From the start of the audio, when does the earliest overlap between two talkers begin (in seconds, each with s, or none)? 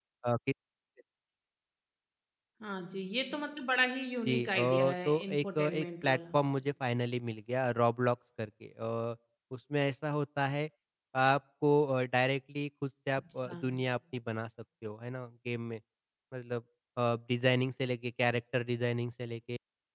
4.3 s